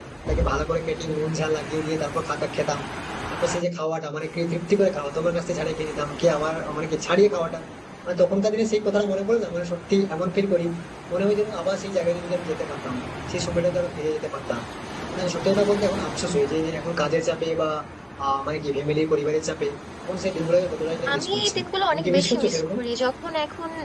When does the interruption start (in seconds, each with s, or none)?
21.1 s